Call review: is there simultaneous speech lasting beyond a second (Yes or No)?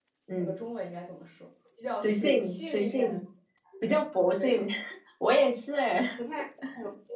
Yes